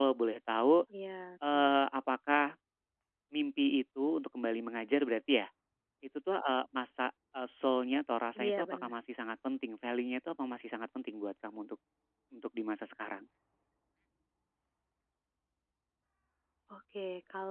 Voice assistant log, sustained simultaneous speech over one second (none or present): none